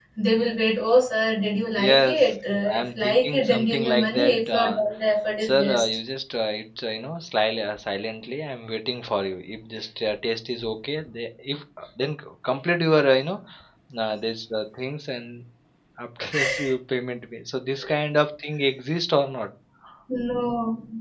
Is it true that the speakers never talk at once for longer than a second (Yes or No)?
No